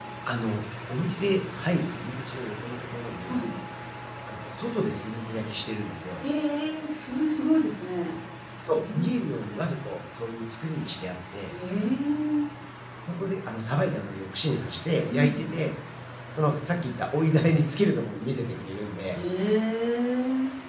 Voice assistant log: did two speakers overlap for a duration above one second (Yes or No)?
No